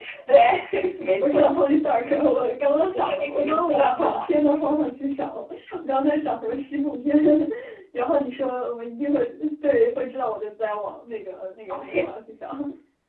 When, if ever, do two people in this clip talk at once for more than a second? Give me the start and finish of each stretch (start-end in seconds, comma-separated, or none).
2.9-4.2